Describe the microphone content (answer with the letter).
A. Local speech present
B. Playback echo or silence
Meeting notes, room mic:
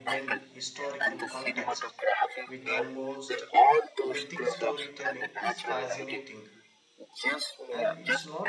A